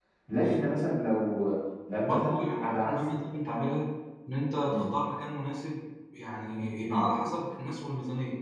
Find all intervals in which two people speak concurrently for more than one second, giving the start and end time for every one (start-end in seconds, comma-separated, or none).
1.9-3.3